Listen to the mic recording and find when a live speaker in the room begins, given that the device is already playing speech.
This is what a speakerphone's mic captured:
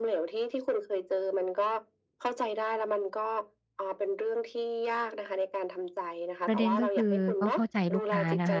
6 s

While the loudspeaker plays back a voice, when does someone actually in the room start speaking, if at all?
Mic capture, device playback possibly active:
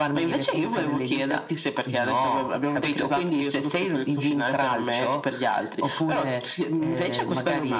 none

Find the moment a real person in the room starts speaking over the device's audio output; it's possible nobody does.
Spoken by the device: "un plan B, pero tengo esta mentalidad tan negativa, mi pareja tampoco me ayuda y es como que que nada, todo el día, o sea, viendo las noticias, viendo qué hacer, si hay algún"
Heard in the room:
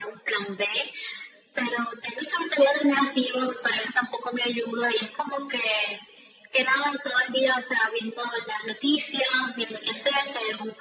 none

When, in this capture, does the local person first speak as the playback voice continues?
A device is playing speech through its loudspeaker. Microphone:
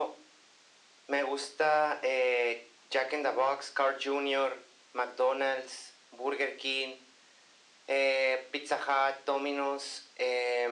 none

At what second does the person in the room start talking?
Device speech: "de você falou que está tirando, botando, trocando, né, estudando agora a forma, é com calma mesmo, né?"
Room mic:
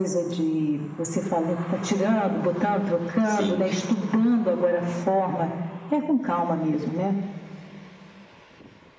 3 s

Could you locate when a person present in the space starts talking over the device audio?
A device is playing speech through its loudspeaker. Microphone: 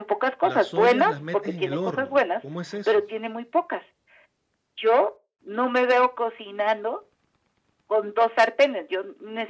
0 s

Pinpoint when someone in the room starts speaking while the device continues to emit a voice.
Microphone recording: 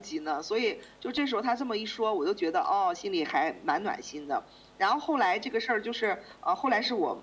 none

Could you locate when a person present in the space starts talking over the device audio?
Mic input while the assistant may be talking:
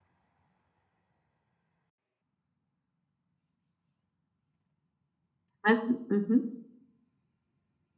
6 s

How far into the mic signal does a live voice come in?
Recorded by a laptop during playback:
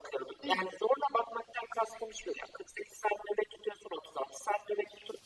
0 s

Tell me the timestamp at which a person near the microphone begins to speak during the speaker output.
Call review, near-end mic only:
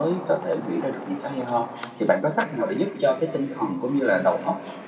none

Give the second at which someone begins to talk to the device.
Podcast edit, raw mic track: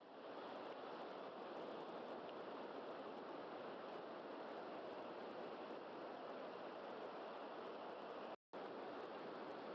none

